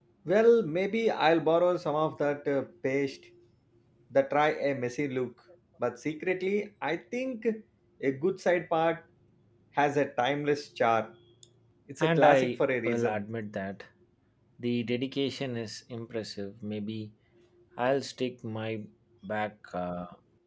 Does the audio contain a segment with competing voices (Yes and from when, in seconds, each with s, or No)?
Yes, from 12.0 s